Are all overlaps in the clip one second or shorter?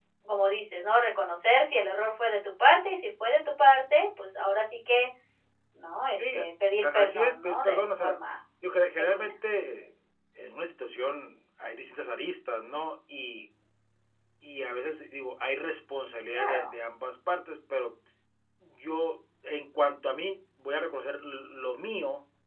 No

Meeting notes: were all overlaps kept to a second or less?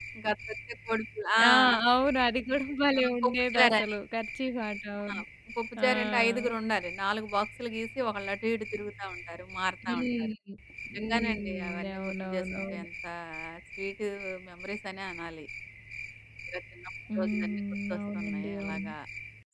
No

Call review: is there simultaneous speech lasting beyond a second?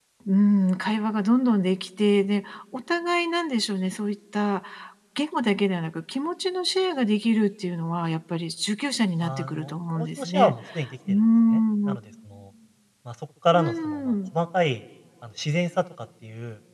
Yes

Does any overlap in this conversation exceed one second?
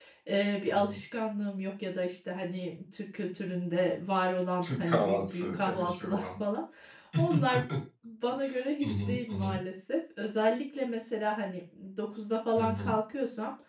Yes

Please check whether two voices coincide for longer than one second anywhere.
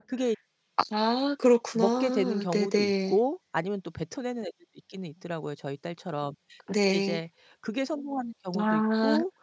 Yes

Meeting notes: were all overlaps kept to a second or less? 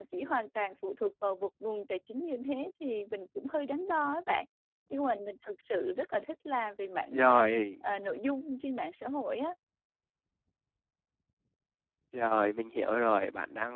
Yes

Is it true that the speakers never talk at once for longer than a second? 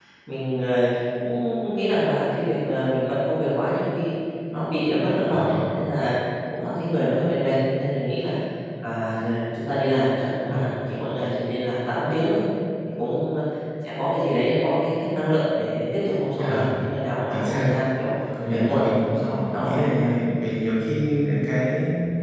No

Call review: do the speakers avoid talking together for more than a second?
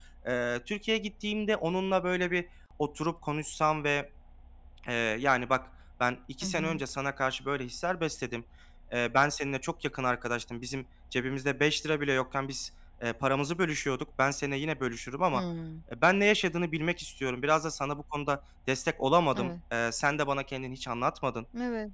Yes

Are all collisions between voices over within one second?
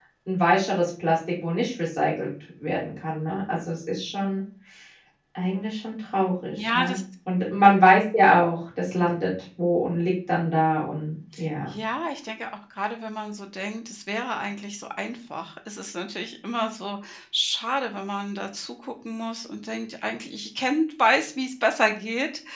Yes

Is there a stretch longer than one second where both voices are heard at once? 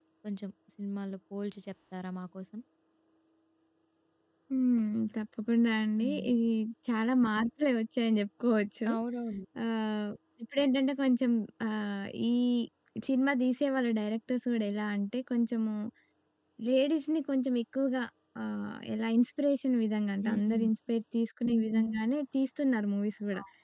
No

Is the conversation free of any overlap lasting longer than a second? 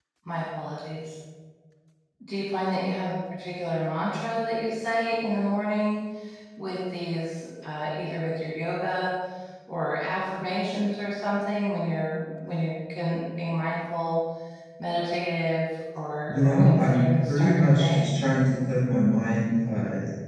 No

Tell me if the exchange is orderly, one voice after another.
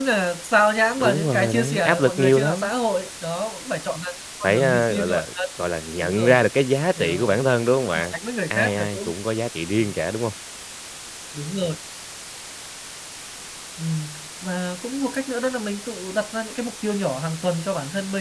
No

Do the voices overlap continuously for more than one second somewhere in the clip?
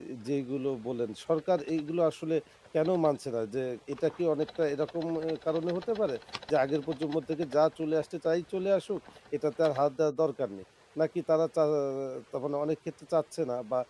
No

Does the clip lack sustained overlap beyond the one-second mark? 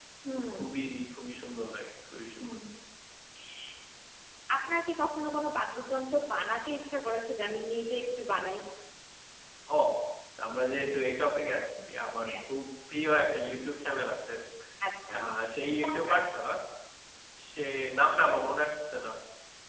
Yes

